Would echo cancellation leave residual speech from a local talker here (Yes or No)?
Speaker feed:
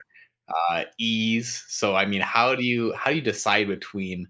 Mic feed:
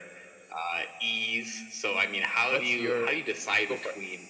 Yes